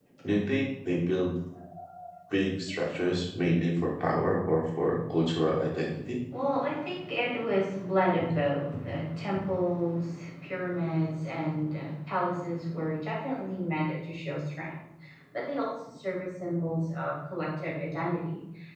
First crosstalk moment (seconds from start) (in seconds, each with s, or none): none